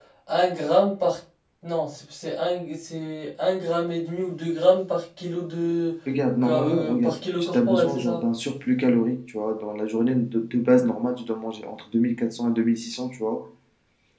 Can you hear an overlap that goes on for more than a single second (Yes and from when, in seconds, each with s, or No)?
Yes, from 6.4 s